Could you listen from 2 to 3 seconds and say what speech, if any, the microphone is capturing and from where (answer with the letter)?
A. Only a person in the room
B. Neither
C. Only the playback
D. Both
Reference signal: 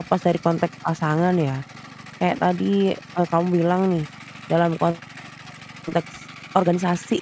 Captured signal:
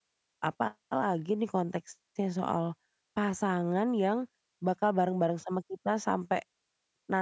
A